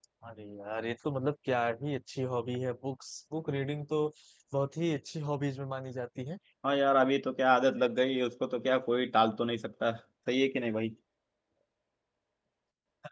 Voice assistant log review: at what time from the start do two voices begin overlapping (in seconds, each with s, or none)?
none